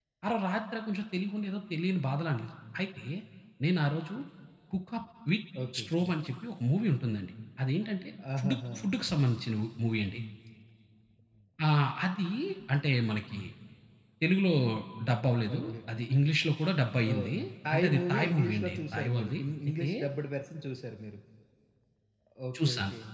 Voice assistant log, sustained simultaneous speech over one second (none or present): present